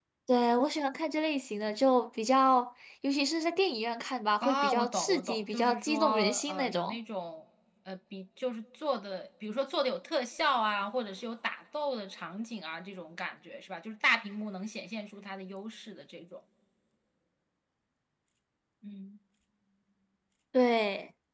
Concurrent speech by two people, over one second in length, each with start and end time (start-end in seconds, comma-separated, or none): 4.4-7.0